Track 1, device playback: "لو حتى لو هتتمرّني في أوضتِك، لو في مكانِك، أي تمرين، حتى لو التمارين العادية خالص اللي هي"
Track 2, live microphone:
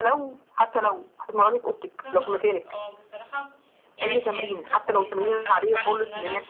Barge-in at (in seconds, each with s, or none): 2.0 s